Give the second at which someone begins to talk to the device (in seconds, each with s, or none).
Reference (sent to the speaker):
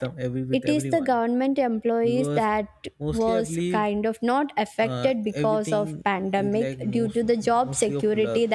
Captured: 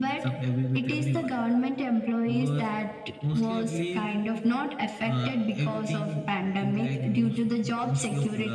none